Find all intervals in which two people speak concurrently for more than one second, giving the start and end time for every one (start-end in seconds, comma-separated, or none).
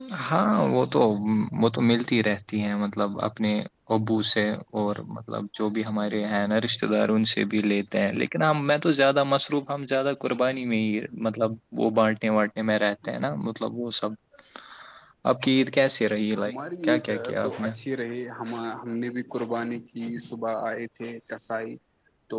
16.4-17.7